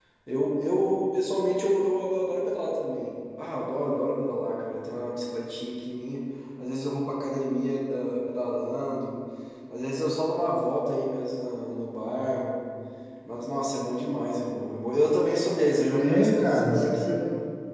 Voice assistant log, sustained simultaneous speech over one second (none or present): present